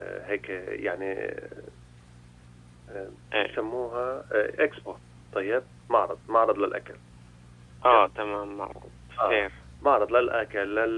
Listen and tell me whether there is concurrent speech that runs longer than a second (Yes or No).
No